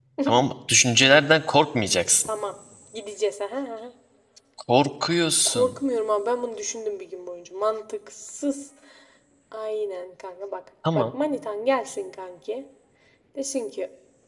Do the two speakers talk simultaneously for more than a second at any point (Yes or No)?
No